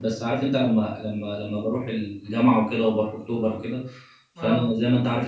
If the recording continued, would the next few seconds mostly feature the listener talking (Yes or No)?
No